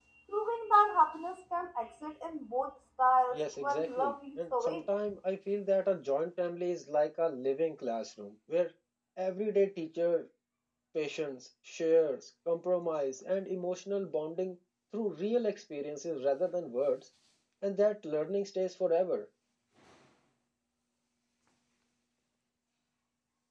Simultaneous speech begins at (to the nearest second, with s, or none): 3 s